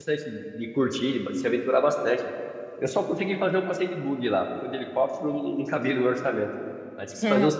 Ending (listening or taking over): listening